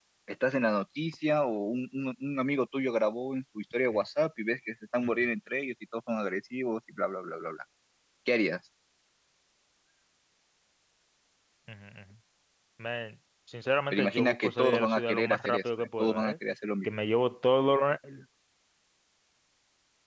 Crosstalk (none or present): present